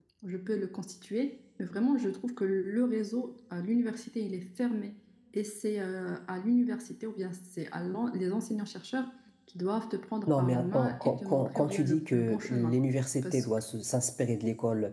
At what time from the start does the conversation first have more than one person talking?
10.3 s

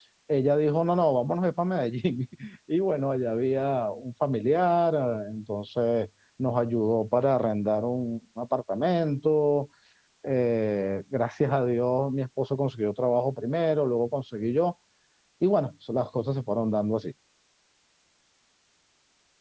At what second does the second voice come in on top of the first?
none

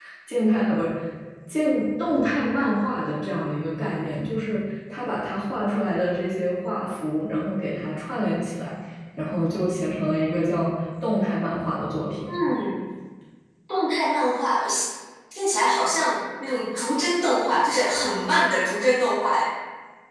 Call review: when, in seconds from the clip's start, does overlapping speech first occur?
none

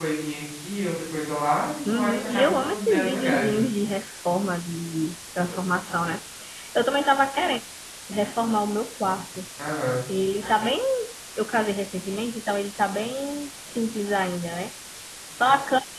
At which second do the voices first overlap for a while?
1.8 s

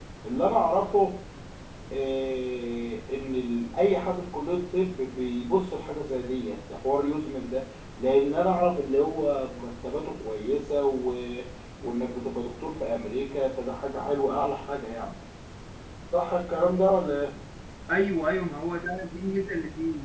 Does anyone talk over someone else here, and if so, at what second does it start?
none

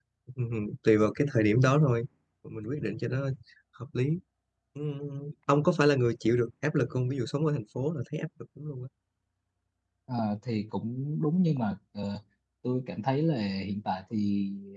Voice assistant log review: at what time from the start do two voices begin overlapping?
none

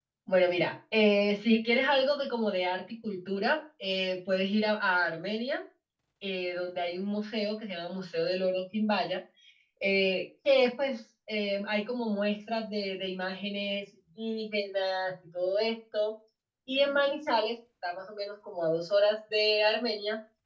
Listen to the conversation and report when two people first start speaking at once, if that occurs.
none

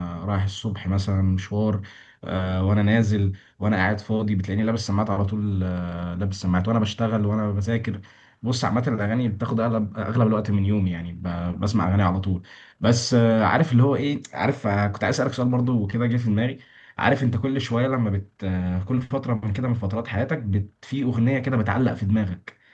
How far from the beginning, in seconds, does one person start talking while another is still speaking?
none

